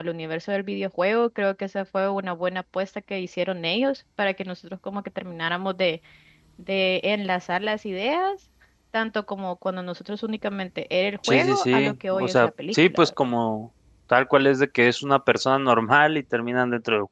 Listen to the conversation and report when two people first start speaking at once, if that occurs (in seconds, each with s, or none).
11.2 s